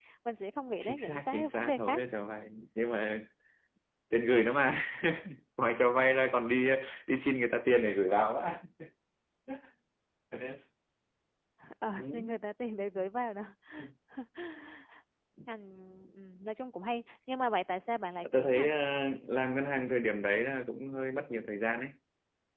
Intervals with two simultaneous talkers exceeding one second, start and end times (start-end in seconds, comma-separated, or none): 0.8-2.0